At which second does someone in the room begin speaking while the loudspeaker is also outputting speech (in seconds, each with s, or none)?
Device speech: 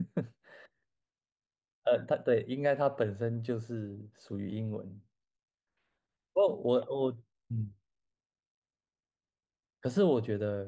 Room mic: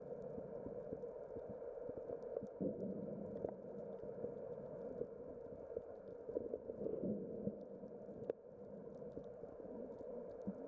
none